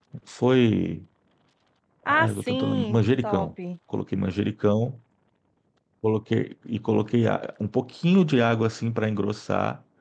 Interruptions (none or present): present